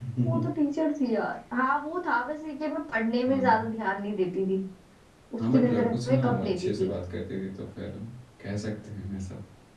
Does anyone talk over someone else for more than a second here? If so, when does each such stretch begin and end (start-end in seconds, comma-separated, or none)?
5.5-6.9